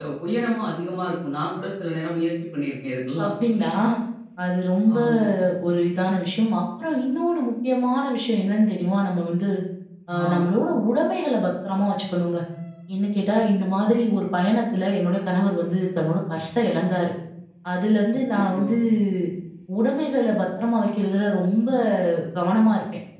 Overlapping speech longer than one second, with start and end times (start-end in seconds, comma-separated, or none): none